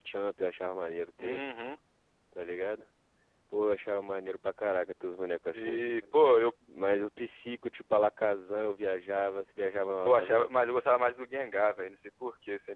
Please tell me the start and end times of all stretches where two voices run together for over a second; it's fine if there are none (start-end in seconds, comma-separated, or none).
none